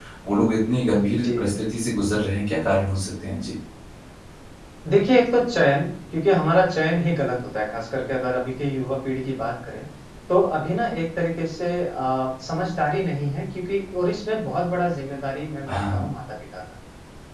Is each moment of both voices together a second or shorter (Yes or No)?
Yes